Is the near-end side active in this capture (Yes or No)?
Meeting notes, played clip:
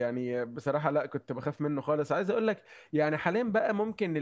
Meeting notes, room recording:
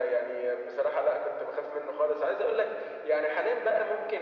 No